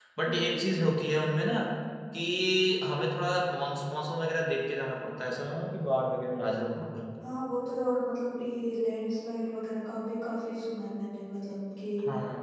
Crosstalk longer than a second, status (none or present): none